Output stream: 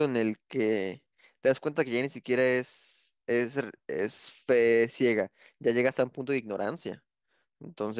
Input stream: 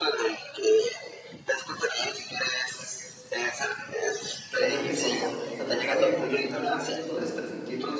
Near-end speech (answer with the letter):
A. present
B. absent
A